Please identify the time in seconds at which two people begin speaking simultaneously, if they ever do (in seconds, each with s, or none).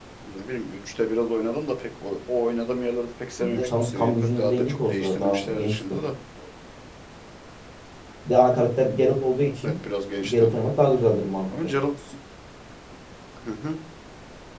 3.4 s